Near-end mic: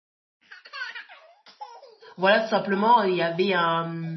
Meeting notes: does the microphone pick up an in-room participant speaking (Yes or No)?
Yes